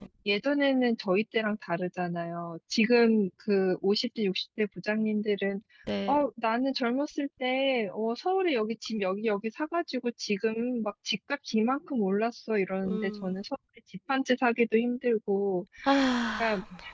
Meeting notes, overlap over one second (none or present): none